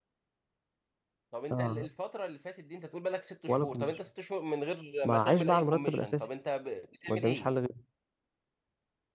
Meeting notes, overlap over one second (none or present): present